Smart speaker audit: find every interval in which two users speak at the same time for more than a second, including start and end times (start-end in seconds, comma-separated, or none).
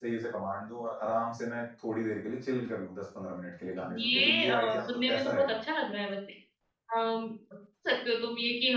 3.8-5.5